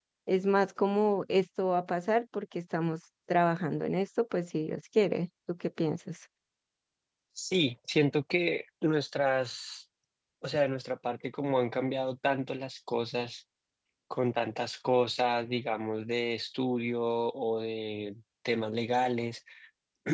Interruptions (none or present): none